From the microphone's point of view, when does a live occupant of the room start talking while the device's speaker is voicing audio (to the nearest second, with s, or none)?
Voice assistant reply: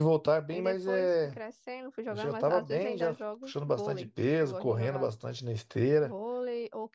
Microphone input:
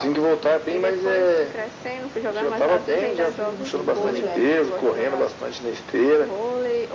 3 s